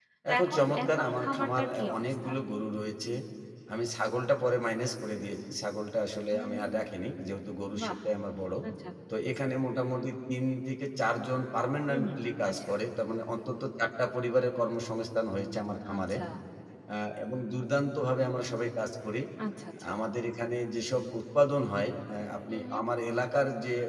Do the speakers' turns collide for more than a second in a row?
Yes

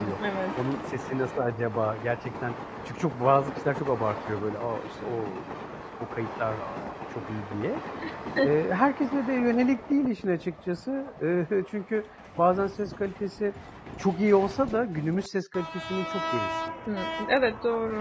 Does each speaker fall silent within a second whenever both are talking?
Yes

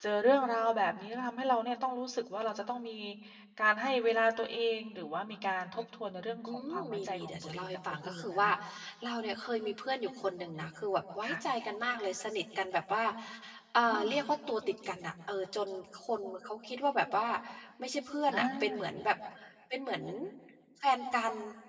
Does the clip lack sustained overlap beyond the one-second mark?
No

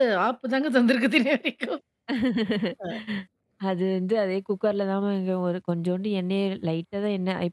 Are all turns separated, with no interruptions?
Yes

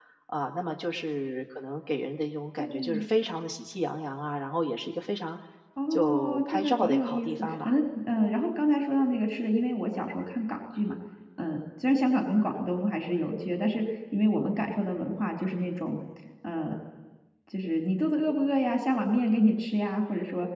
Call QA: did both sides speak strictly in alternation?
No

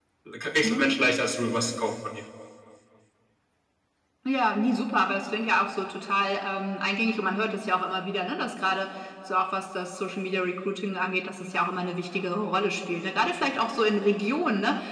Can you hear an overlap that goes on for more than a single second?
No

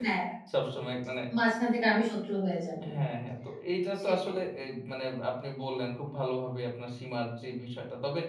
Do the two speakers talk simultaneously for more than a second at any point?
No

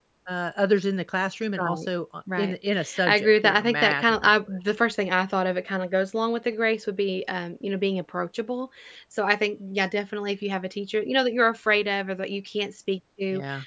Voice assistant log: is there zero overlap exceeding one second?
No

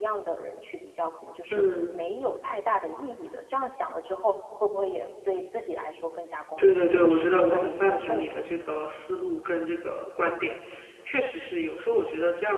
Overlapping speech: Yes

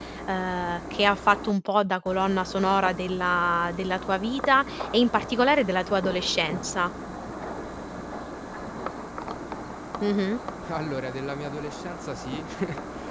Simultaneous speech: No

